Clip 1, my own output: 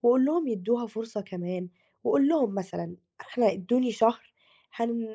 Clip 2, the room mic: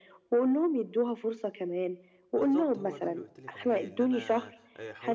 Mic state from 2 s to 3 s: both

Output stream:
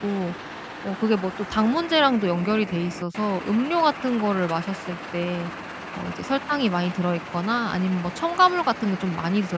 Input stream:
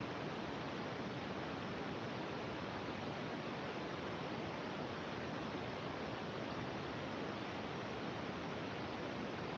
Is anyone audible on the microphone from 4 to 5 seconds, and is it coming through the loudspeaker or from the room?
neither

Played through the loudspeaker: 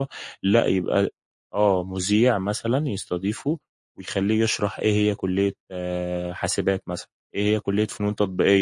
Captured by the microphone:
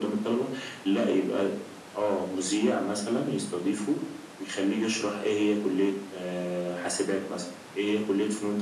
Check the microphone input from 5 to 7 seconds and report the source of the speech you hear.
echo only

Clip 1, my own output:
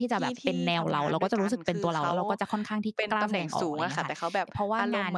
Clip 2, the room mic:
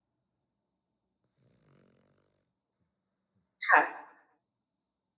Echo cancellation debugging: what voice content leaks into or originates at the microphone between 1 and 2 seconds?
neither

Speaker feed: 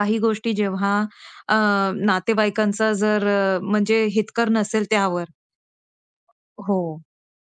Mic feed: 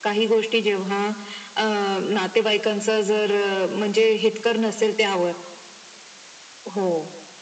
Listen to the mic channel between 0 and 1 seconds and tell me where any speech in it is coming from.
echo only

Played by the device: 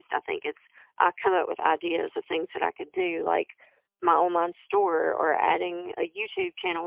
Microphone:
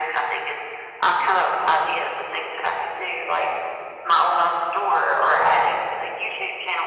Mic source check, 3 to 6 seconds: echo only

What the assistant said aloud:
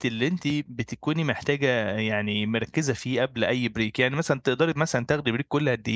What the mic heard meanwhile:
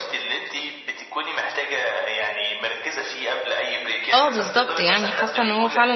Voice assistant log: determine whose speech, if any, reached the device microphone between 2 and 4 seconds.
echo only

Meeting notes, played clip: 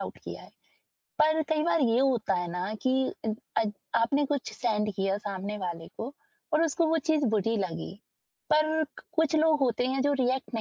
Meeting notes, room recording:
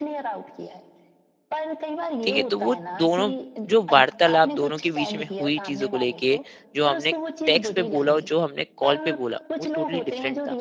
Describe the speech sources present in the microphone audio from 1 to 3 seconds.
both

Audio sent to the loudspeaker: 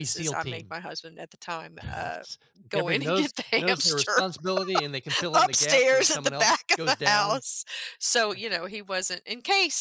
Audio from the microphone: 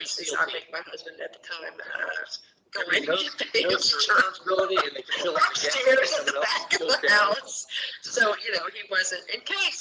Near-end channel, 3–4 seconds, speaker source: echo only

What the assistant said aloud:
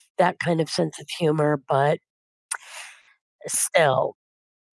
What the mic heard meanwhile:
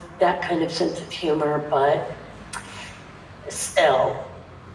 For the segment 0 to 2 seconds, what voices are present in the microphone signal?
echo only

